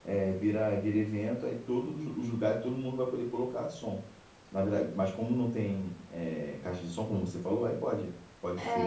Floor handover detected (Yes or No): Yes